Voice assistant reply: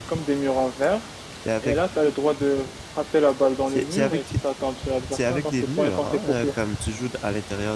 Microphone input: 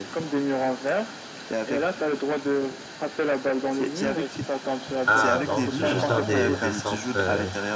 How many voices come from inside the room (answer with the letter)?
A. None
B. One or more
B